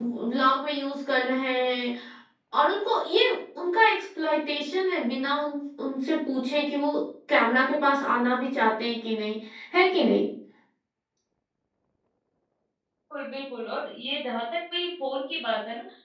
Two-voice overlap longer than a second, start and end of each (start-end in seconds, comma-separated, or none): none